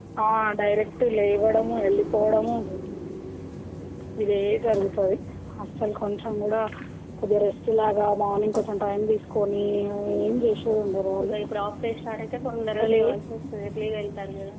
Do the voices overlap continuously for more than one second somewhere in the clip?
No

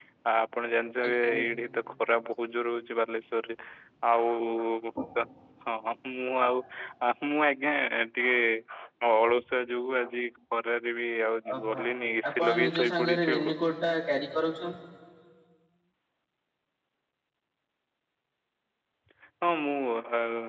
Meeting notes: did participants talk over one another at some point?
Yes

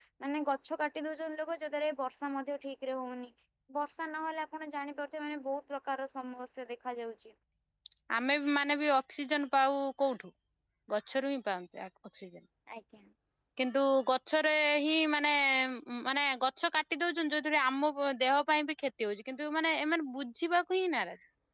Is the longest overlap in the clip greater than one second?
No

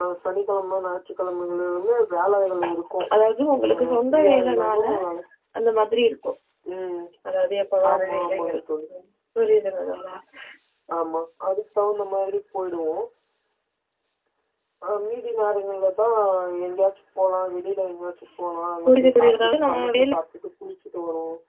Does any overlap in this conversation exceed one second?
Yes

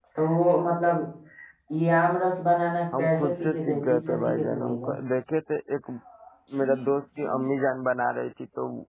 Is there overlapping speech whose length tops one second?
Yes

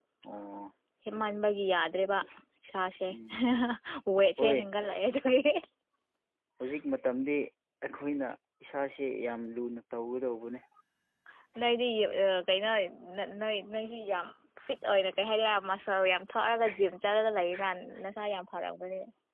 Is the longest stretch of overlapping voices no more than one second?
Yes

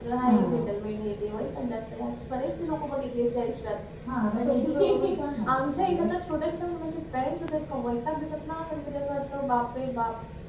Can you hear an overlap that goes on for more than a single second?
Yes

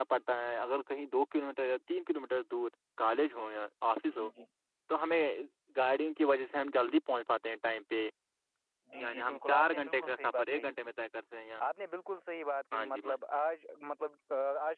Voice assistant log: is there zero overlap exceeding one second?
No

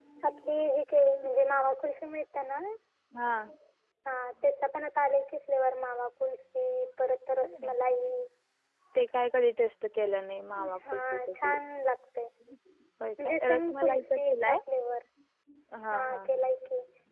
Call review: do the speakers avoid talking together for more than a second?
No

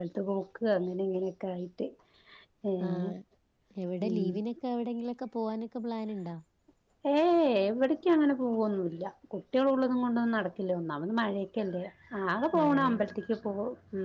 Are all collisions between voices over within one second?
Yes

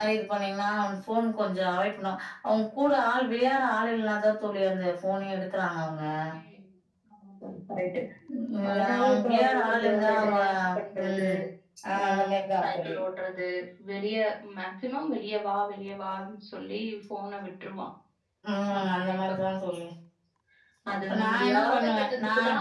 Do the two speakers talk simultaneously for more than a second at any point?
Yes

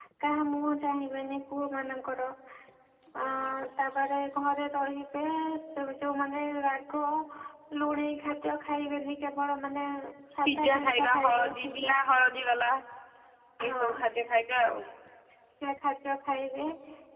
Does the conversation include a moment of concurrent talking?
Yes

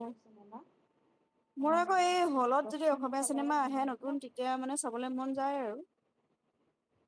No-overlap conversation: No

